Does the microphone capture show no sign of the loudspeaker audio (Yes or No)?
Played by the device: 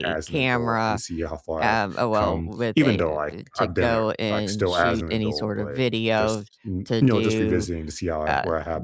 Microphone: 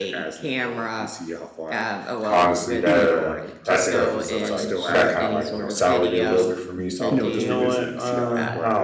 No